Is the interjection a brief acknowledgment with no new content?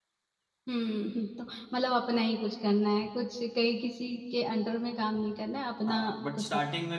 No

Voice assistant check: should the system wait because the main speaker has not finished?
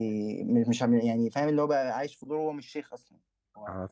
No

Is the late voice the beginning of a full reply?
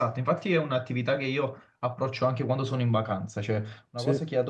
No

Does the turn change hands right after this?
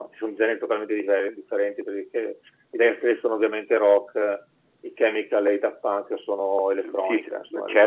Yes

